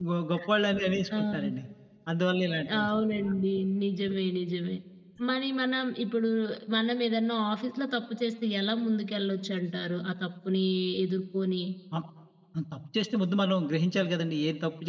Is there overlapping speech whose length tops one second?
No

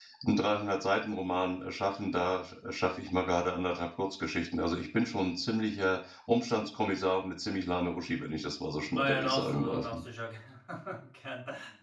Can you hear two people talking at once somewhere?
Yes, from 8.7 s

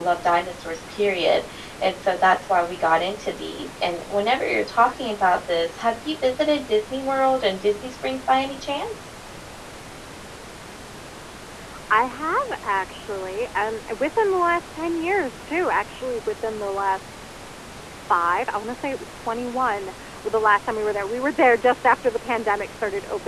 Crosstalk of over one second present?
No

